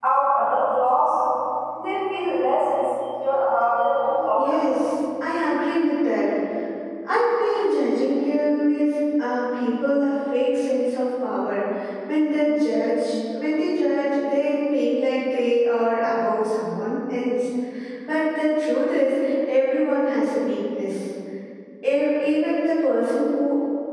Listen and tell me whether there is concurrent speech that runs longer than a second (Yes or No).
No